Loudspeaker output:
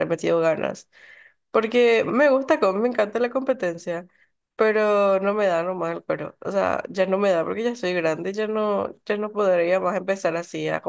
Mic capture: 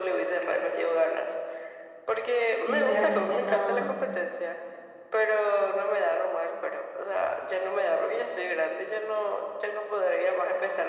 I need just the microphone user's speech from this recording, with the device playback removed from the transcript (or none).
sinceramente no.